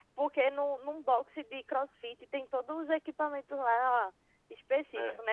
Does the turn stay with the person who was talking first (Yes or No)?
Yes